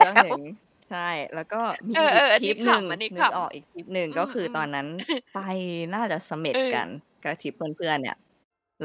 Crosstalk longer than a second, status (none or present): present